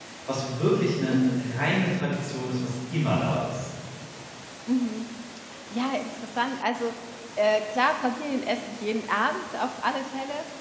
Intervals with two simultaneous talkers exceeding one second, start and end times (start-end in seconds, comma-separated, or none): none